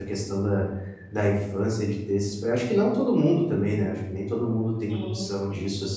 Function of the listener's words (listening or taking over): listening